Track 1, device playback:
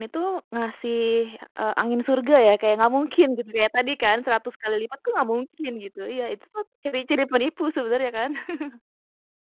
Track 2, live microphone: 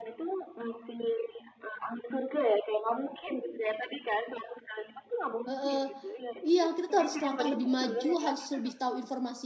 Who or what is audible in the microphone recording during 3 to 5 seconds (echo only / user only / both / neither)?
echo only